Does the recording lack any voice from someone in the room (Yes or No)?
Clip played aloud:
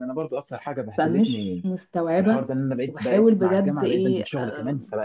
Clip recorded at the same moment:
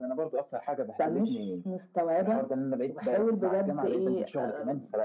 Yes